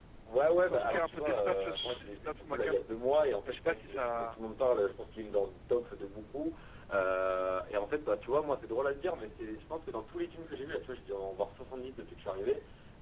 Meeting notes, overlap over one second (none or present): present